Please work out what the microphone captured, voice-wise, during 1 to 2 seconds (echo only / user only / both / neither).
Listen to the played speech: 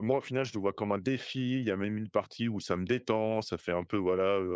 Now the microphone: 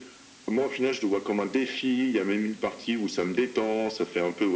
echo only